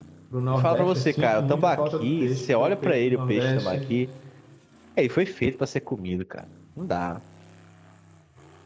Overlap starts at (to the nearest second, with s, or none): 1 s